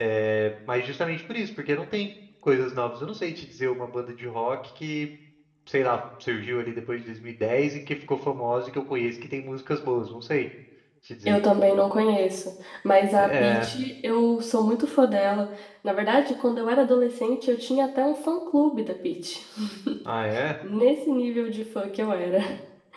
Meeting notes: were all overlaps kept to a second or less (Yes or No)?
Yes